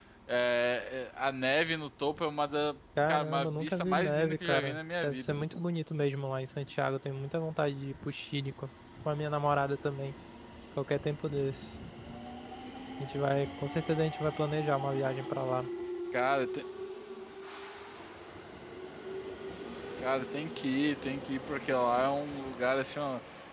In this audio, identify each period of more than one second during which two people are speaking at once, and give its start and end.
3.1-5.2

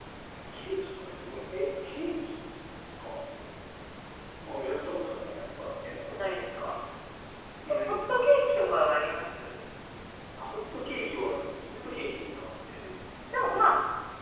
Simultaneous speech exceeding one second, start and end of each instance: none

